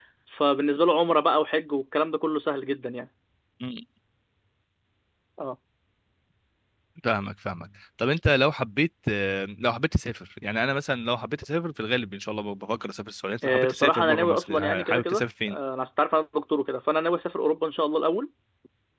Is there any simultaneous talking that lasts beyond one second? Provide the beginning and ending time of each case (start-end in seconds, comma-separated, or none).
13.4-15.6